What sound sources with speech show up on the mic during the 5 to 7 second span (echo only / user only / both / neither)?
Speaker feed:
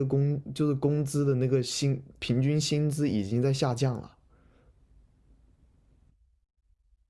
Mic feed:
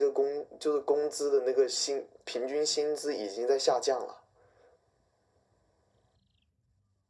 neither